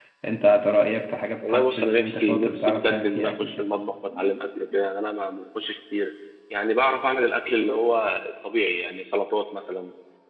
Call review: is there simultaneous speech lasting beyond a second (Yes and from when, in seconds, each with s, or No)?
Yes, from 1.4 s